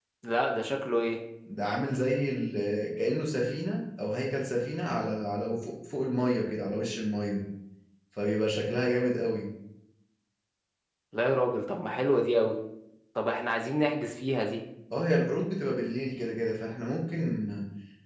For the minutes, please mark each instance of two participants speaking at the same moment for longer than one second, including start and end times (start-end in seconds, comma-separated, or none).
none